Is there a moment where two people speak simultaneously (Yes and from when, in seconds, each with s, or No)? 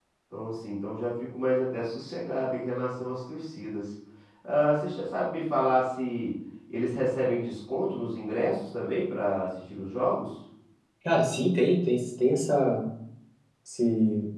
No